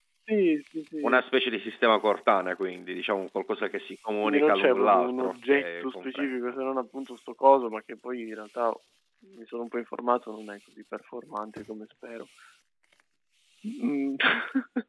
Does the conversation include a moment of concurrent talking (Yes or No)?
Yes